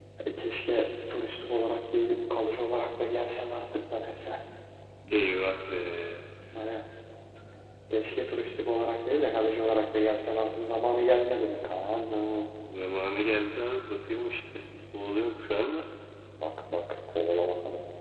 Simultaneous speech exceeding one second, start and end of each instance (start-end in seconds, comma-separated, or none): none